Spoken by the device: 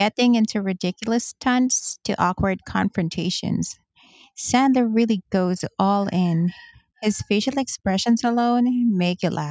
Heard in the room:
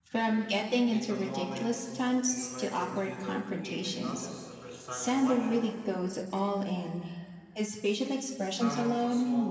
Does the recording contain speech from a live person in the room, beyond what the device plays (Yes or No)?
Yes